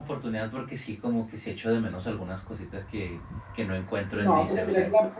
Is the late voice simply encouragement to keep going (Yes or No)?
No